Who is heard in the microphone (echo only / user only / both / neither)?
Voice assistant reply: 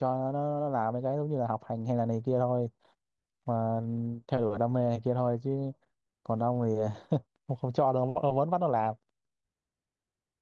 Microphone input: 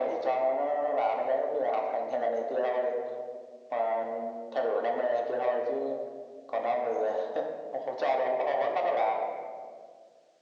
echo only